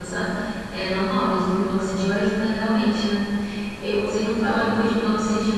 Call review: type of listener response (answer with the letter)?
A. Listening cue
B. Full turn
A